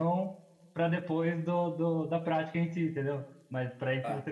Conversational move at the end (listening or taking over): listening